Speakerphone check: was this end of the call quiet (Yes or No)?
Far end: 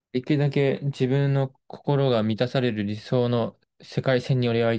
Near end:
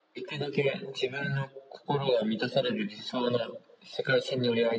Yes